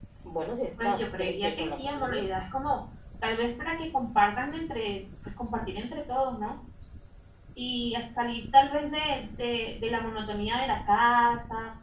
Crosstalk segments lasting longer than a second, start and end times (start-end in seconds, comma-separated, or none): 0.8-2.2